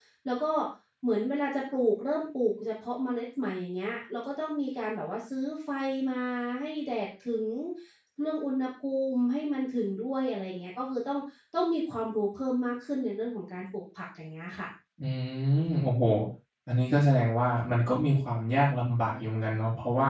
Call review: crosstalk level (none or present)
none